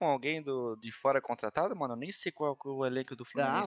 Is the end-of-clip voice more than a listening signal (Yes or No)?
Yes